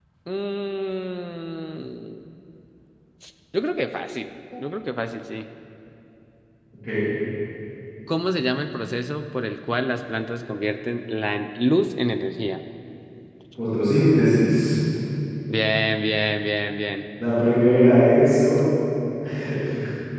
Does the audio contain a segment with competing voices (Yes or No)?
No